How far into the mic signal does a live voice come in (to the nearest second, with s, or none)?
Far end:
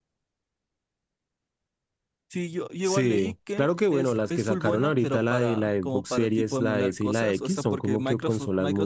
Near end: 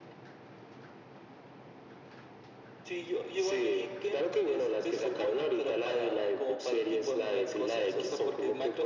none